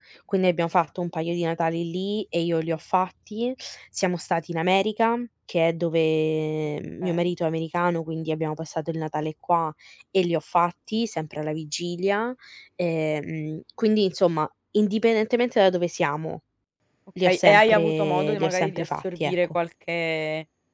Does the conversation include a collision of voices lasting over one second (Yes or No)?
Yes